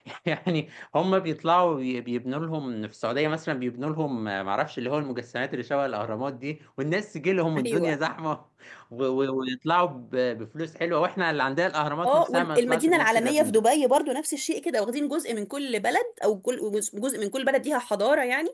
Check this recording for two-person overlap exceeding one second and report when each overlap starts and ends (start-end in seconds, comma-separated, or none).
12.0-13.6